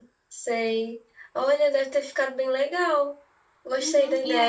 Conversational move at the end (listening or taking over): taking over